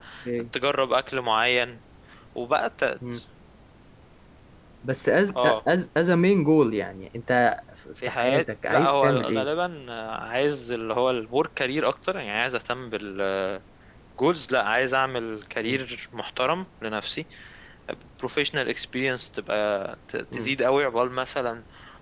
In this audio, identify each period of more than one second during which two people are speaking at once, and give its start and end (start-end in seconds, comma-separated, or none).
8.0-9.5